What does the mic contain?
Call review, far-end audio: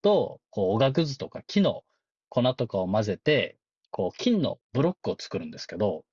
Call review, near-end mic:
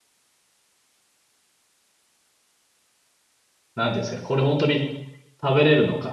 user only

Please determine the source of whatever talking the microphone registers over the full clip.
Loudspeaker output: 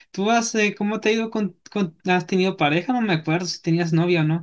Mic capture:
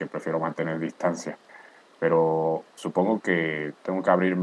user only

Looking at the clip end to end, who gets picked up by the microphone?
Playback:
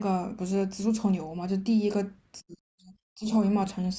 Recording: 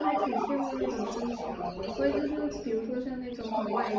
both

